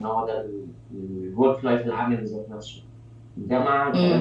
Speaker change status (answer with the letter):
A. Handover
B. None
B